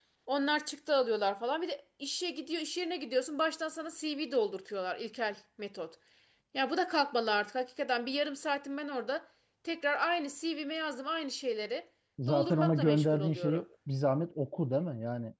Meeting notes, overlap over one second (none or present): present